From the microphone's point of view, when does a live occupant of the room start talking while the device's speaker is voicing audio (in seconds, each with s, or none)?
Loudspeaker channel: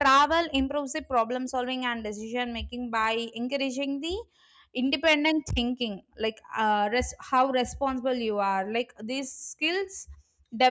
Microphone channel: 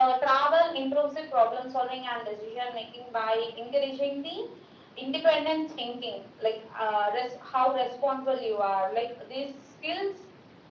none